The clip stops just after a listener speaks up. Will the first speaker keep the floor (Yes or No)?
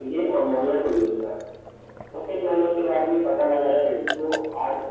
Yes